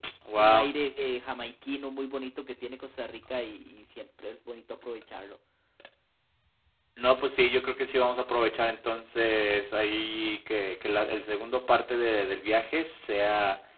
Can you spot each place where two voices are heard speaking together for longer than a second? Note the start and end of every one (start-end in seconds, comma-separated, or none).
none